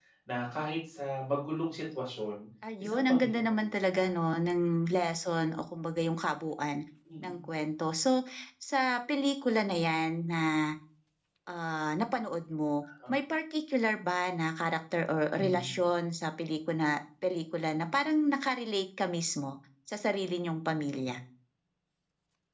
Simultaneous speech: Yes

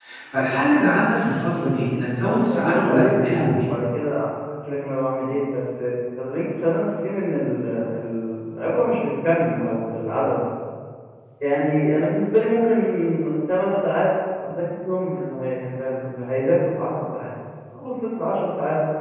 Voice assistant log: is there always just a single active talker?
No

